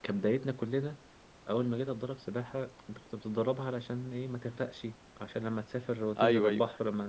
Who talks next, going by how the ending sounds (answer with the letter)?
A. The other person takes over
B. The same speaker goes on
B